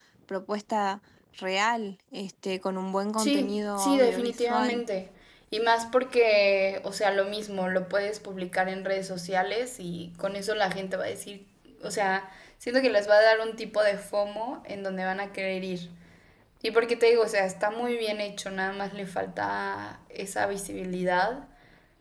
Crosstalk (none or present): present